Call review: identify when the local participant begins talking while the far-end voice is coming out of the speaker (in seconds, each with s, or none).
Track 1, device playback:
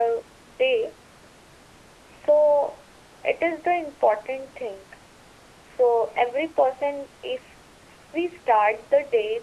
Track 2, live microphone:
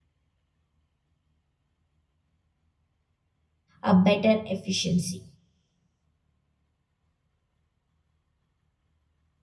3.8 s